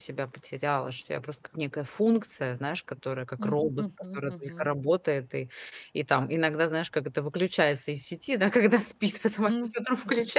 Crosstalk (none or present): present